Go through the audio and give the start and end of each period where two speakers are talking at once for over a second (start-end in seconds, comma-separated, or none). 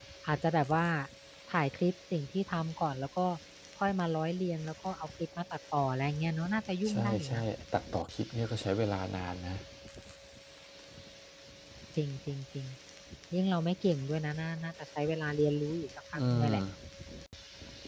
none